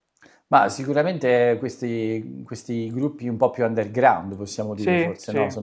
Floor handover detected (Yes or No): No